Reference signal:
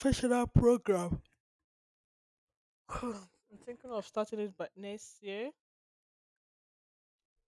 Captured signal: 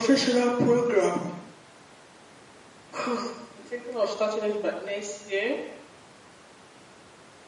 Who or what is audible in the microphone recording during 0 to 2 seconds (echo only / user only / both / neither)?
echo only